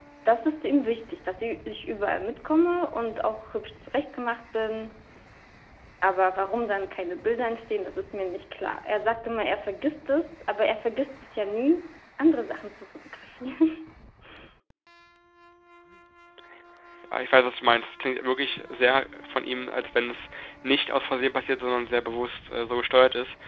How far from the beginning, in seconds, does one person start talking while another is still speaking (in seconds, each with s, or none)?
none